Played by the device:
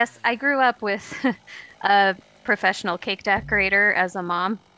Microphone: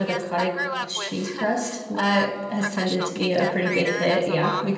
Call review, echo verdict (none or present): present